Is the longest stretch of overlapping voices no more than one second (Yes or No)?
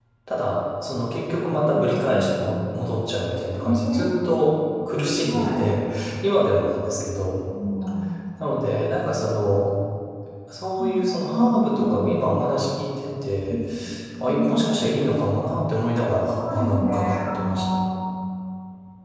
No